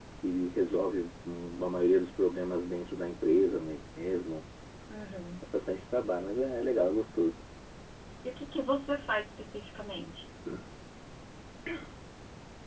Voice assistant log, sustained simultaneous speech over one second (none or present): none